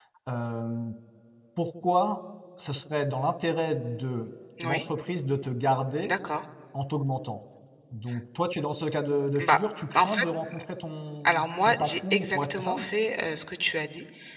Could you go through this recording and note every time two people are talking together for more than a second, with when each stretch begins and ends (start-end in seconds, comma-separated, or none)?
11.2-12.8